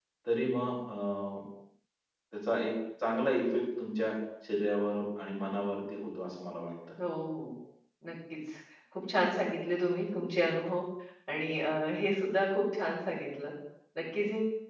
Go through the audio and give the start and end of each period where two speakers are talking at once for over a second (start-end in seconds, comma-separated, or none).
none